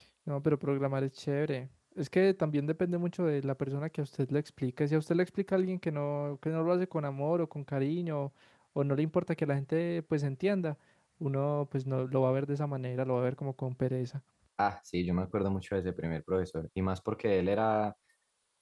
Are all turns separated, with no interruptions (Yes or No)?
Yes